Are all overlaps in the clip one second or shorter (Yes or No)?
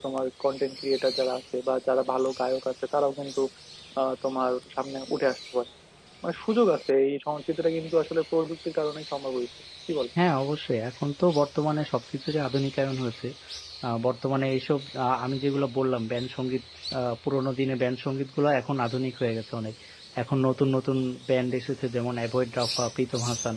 Yes